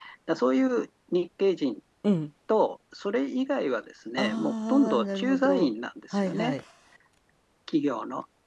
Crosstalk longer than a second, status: present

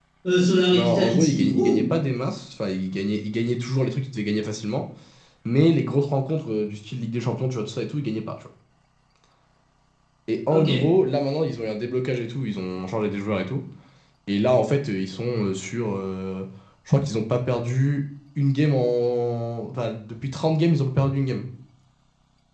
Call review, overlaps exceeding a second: present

